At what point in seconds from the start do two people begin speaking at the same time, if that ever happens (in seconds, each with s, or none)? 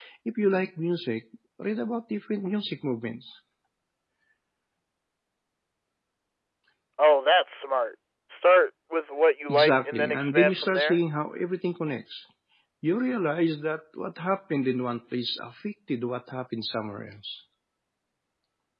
9.5 s